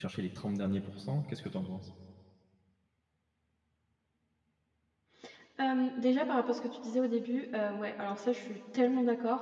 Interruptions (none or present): none